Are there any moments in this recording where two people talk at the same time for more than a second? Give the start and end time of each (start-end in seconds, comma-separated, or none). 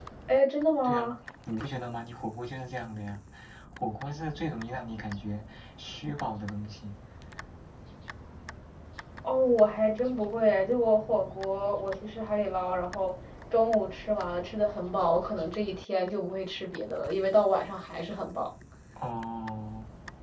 none